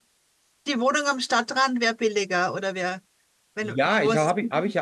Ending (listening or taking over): taking over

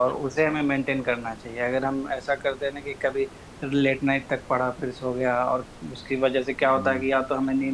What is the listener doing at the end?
listening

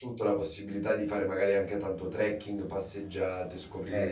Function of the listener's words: listening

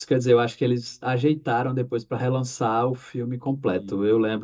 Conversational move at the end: listening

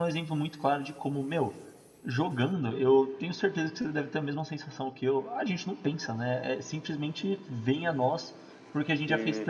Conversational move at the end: listening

